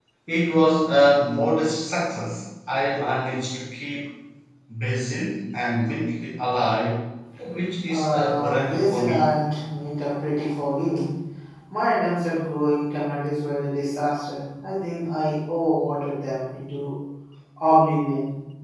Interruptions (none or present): present